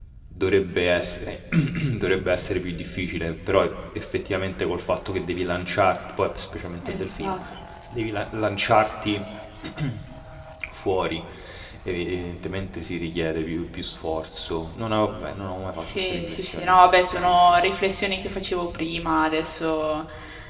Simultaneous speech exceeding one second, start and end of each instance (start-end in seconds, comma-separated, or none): 15.7-17.6